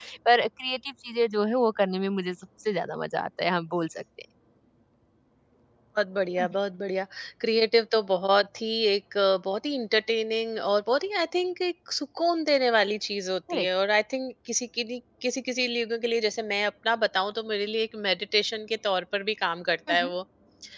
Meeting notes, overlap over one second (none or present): none